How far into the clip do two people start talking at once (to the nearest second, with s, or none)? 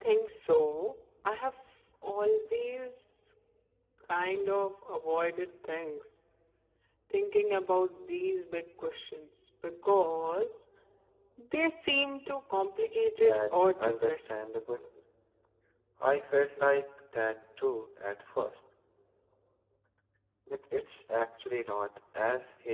13 s